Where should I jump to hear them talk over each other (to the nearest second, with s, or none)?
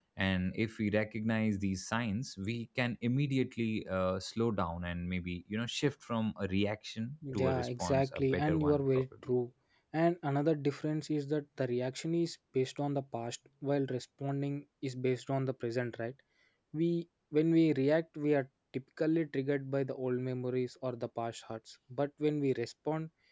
7 s